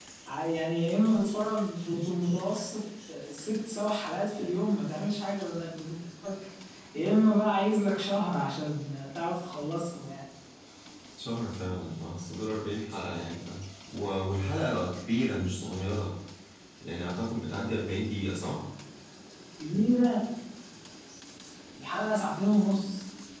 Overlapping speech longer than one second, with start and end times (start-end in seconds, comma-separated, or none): none